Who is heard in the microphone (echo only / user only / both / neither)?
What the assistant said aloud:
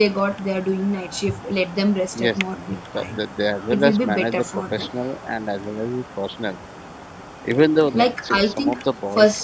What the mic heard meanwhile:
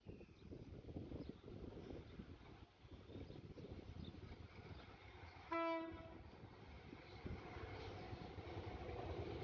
neither